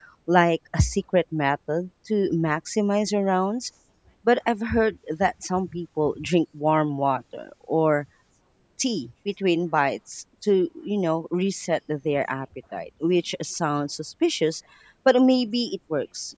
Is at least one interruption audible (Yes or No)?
No